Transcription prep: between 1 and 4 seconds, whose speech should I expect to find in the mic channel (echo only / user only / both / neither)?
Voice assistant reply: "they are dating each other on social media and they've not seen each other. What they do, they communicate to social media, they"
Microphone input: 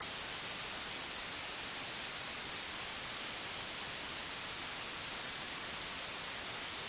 neither